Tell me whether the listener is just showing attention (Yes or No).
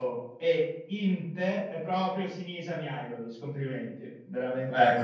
Yes